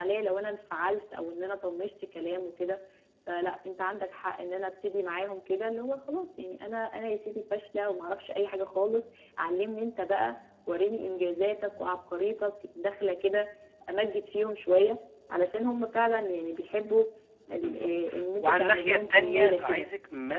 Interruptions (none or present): present